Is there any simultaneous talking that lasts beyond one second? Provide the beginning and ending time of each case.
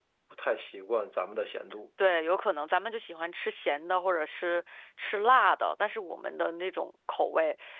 none

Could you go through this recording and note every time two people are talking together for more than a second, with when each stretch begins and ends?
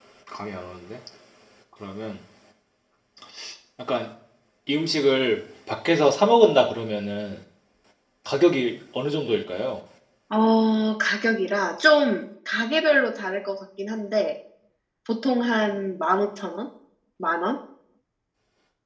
none

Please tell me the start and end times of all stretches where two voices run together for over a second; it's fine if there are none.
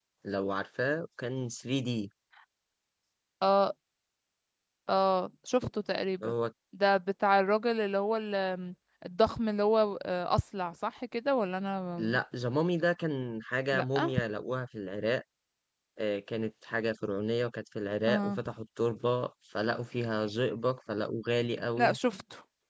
none

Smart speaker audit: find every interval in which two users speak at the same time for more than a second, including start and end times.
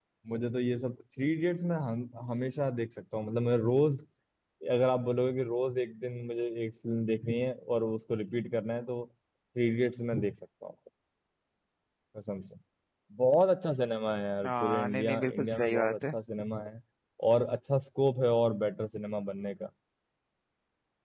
14.4-16.1

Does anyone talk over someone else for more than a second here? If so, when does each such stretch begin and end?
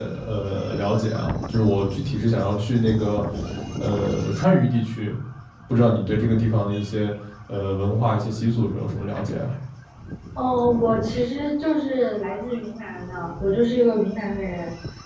none

